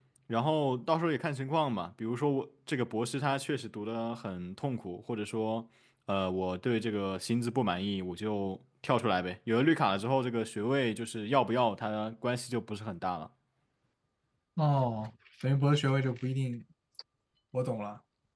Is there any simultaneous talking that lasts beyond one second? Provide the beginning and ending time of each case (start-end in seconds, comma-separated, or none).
none